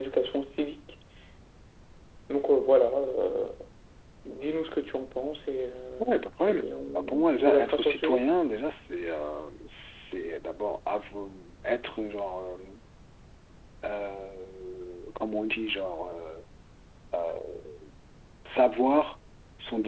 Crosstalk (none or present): present